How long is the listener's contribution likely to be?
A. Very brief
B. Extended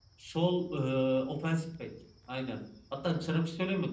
A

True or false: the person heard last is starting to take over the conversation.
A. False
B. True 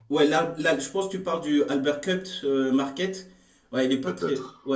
A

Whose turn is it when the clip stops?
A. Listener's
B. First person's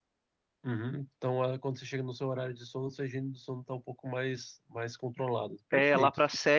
A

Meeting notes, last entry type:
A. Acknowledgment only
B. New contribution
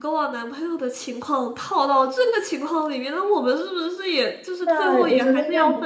B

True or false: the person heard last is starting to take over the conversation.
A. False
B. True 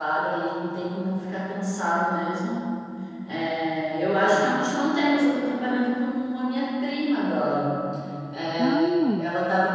A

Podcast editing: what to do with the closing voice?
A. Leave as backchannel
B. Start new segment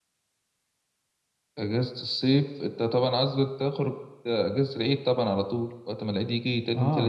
B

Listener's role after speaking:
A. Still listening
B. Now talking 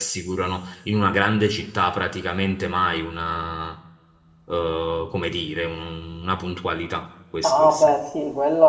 B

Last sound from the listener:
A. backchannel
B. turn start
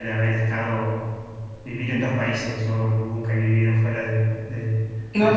A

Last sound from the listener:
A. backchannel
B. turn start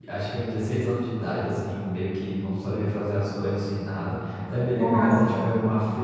A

